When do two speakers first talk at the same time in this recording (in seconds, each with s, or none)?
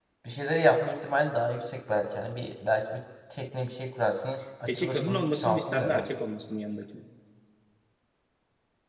4.7 s